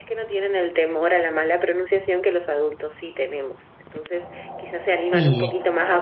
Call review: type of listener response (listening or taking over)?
listening